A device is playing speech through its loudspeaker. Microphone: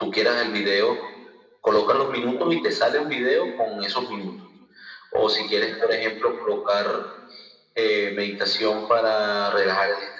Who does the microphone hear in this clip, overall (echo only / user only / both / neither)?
echo only